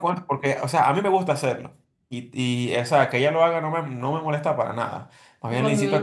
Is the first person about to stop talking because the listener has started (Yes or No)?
Yes